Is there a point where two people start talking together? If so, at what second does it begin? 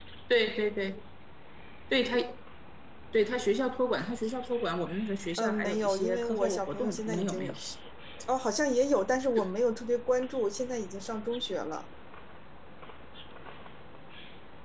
5.4 s

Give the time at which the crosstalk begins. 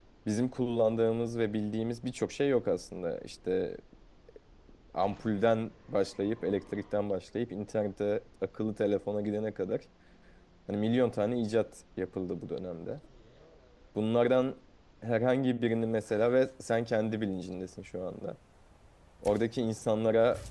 none

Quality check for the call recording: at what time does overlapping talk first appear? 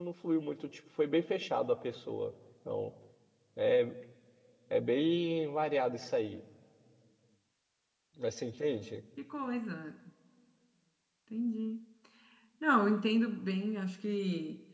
none

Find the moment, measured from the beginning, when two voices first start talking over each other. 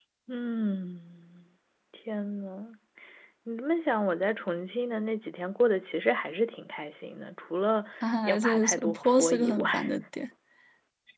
8.2 s

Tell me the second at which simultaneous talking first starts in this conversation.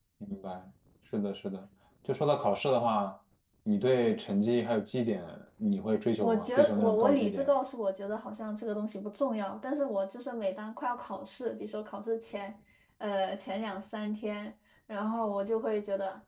6.2 s

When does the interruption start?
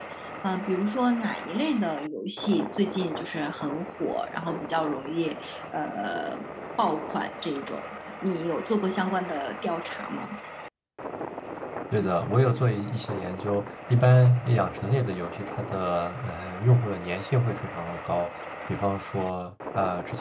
none

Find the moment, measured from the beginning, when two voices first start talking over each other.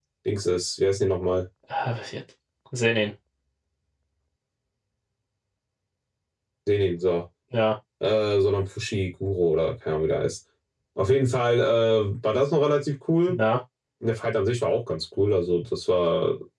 none

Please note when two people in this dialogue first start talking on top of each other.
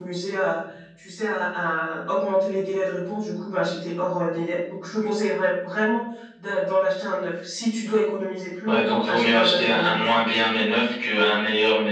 8.7 s

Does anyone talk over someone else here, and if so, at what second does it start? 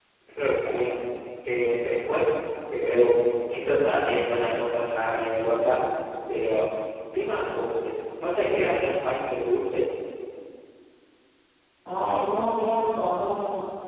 none

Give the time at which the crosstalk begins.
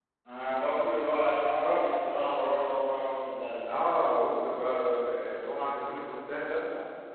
none

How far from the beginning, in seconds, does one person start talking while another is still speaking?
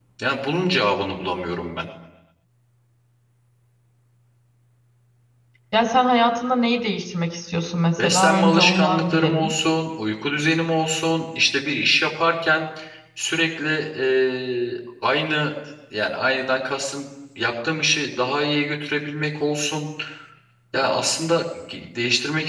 8.0 s

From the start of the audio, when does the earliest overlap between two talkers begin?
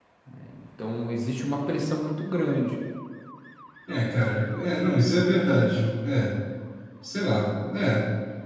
none

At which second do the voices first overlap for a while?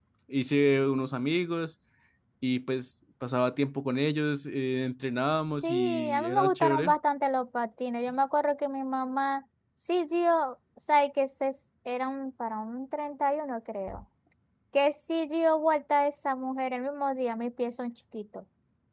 5.6 s

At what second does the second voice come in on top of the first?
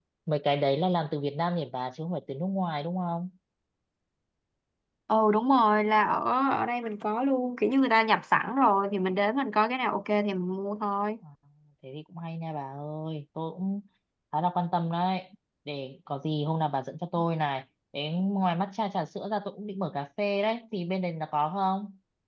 none

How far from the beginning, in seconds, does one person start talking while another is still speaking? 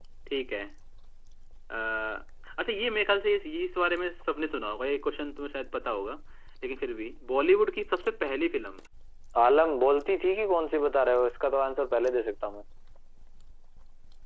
none

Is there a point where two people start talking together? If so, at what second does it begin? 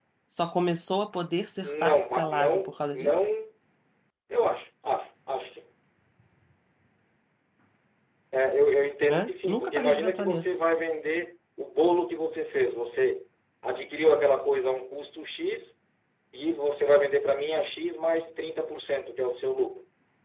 1.6 s

